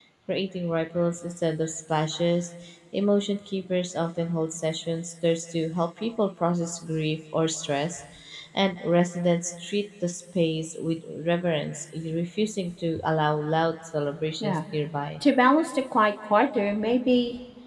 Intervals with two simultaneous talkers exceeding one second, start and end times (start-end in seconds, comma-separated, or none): none